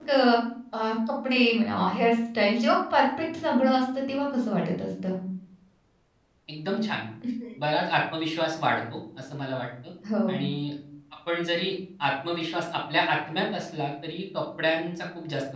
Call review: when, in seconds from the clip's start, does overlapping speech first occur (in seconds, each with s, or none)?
none